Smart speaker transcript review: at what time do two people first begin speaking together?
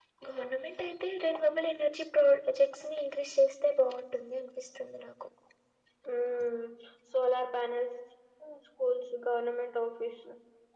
none

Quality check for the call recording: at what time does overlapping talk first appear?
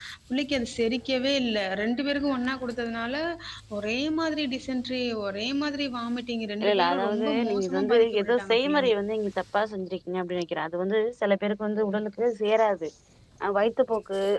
6.6 s

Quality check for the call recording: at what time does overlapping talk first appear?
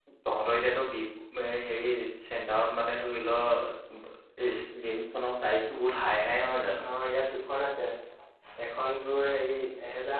none

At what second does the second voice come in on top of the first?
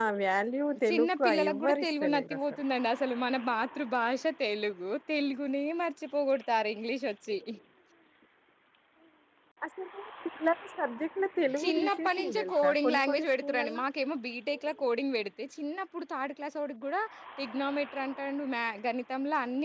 0.9 s

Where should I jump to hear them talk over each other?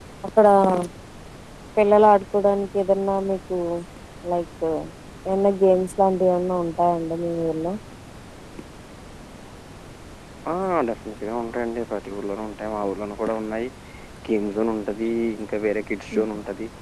none

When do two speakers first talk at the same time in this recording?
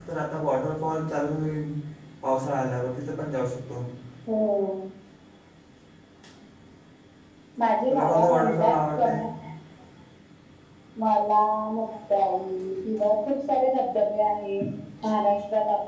7.9 s

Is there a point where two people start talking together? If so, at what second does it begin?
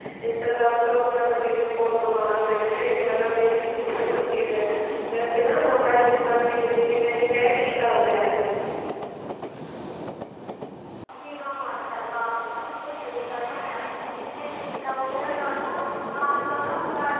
none

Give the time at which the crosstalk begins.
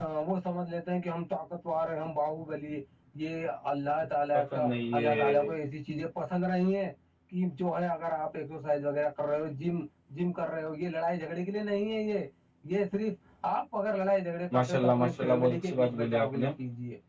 4.3 s

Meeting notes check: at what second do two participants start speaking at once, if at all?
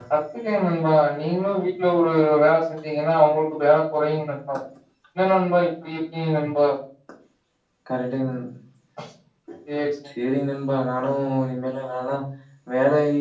none

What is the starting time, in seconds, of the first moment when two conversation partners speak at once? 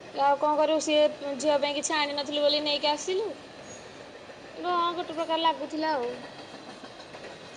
none

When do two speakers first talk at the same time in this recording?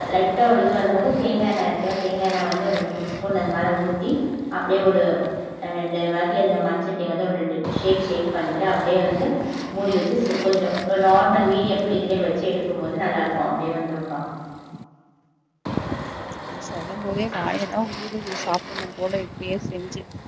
none

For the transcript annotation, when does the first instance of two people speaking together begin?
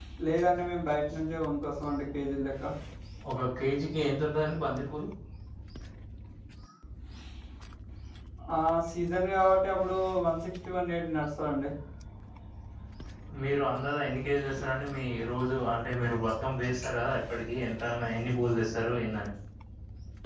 none

